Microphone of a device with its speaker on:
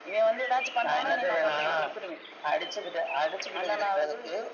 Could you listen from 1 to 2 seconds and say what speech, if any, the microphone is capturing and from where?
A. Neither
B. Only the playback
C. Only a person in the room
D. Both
B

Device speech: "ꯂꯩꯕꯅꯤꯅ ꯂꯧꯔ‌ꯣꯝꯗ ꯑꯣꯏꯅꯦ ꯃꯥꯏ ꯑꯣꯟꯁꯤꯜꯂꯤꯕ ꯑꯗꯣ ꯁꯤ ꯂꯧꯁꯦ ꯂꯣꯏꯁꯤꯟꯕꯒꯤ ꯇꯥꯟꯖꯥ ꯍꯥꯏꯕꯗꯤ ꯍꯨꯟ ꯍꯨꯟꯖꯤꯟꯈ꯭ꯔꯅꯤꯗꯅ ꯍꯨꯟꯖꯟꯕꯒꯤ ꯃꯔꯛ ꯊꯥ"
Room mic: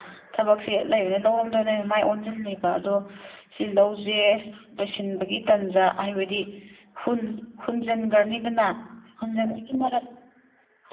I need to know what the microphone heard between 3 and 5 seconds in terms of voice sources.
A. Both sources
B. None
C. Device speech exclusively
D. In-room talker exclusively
C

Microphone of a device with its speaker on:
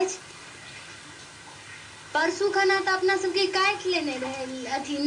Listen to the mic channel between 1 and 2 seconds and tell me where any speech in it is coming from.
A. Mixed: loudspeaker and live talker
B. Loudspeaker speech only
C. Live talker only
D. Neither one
D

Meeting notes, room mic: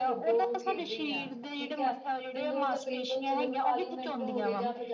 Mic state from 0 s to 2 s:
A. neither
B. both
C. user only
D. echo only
B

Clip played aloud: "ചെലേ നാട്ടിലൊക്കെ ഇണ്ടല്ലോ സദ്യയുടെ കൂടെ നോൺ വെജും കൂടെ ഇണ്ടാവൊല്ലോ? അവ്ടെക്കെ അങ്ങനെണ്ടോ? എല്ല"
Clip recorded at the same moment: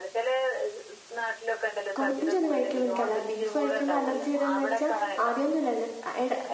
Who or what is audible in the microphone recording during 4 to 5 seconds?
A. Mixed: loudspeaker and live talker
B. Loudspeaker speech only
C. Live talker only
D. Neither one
A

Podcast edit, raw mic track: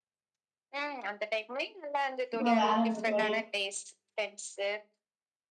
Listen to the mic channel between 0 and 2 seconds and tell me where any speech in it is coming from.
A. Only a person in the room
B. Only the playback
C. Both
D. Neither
B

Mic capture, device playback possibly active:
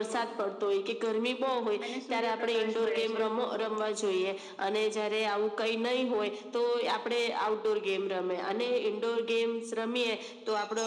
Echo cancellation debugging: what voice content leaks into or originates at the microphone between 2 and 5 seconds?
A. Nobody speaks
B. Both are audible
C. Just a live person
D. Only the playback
B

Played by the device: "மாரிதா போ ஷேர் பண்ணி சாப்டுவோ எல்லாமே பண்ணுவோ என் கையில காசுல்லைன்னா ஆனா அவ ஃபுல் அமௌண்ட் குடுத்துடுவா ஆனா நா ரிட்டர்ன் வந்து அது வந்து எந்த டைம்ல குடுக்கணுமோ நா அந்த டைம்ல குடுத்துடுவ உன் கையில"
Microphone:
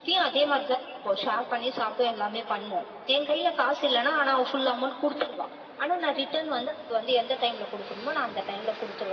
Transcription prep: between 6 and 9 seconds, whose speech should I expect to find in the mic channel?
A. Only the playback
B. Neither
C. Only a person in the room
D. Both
A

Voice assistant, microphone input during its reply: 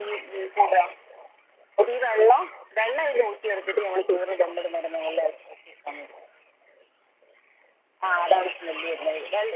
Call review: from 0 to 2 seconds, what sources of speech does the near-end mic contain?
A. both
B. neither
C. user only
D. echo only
D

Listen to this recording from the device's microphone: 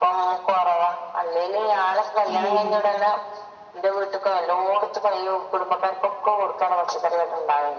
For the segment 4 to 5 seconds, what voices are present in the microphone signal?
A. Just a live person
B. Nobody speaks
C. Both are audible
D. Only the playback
D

